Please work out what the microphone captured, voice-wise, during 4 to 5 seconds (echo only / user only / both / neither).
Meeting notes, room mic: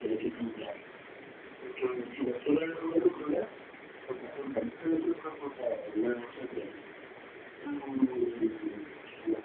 echo only